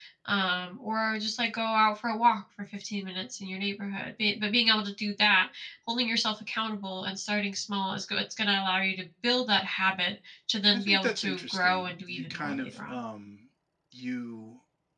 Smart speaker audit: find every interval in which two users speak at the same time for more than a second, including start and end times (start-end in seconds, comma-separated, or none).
10.7-13.0